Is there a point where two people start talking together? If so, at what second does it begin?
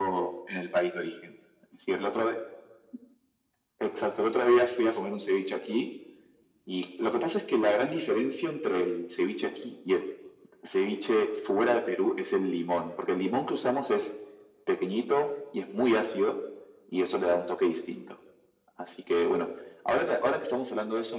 none

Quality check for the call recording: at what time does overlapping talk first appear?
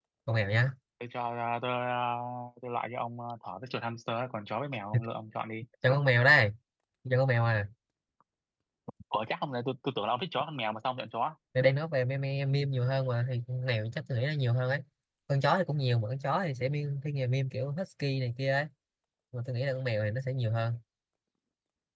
none

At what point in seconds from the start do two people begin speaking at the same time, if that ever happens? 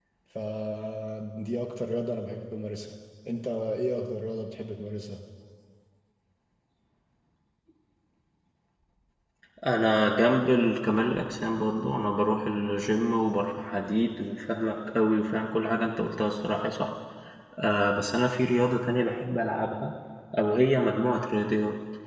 none

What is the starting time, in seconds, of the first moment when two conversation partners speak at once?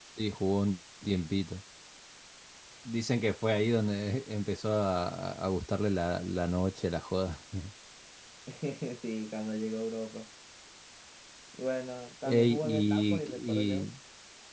12 s

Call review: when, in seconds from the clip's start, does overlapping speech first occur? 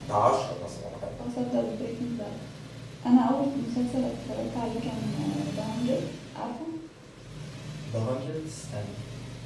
none

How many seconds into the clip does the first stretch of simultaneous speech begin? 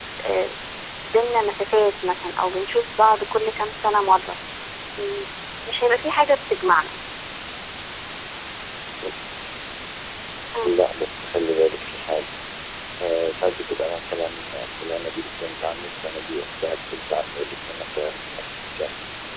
none

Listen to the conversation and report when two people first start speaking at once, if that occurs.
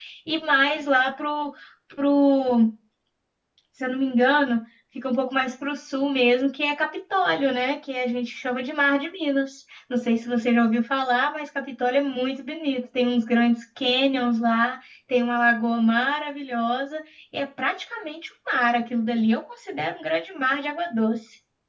none

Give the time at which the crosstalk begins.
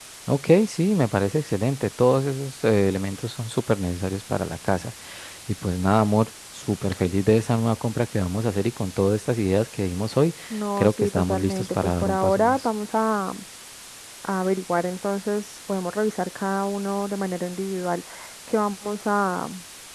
11 s

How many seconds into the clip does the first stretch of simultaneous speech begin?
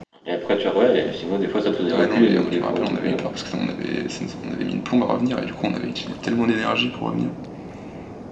2 s

